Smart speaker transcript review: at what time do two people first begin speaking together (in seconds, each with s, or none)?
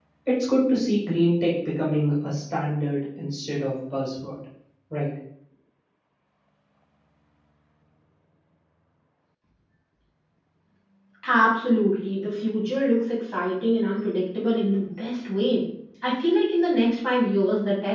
none